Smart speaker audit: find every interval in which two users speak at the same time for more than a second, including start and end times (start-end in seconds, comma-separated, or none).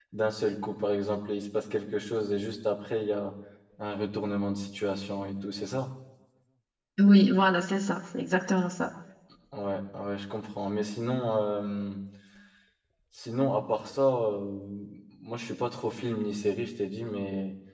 none